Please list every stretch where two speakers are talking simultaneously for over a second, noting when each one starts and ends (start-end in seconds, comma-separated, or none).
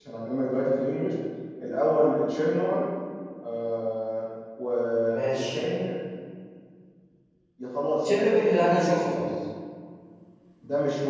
8.0-9.2